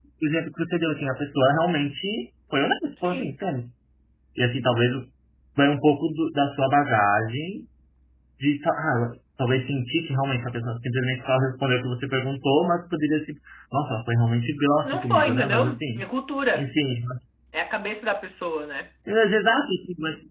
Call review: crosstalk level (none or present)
present